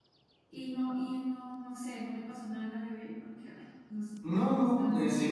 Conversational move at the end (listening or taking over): taking over